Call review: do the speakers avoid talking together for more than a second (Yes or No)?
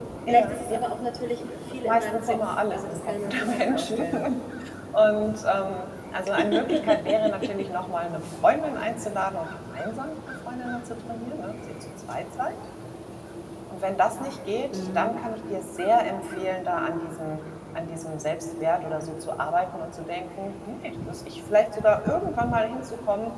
No